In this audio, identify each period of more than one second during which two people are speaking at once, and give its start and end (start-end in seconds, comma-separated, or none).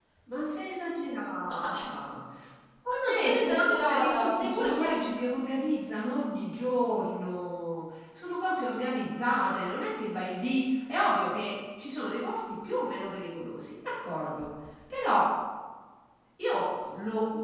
2.9-5.0